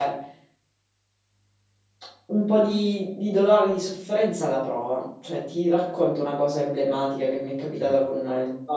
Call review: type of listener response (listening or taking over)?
listening